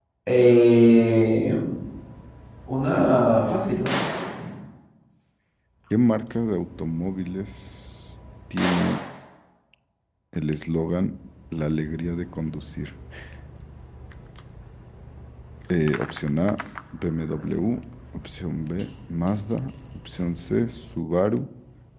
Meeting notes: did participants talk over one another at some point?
No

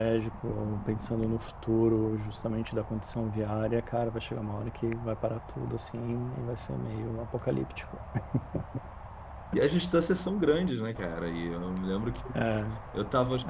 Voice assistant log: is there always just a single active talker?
Yes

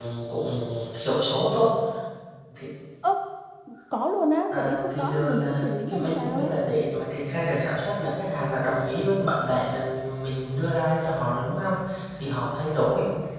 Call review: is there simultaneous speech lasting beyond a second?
Yes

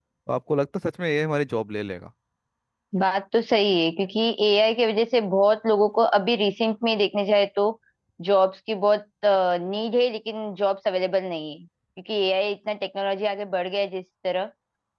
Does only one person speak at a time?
Yes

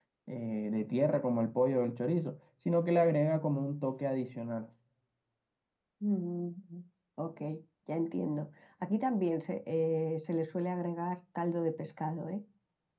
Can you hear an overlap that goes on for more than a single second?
No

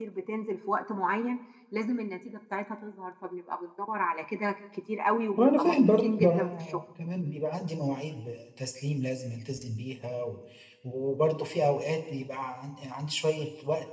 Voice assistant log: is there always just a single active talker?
No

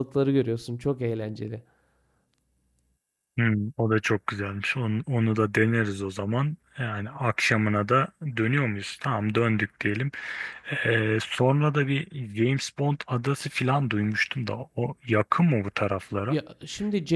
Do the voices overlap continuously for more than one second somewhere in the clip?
No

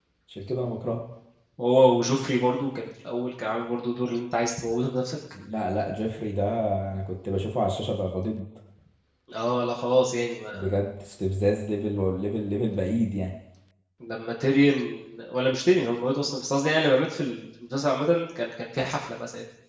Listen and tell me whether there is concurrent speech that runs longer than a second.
No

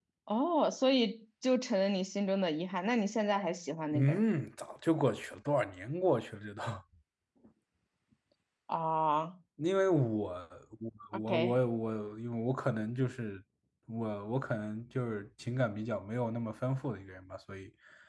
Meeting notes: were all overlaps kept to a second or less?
Yes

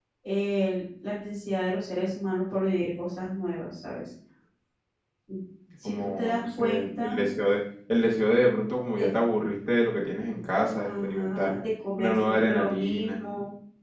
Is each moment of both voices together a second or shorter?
No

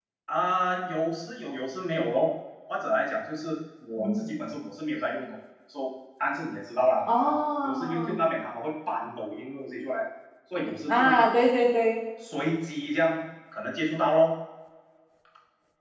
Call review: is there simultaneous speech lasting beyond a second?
No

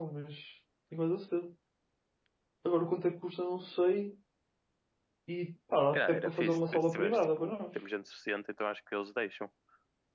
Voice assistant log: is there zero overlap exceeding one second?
No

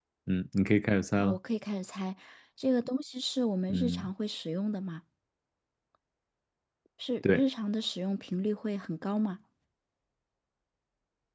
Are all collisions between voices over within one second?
Yes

